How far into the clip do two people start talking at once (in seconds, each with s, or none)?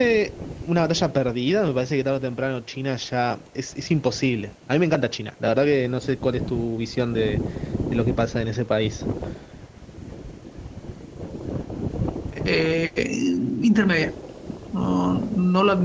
none